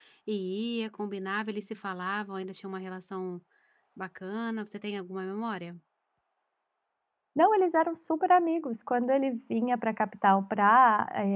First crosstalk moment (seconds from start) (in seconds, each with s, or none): none